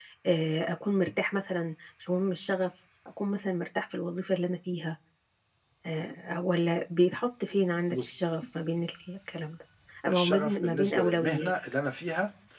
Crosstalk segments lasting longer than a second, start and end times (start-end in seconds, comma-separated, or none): 10.1-11.5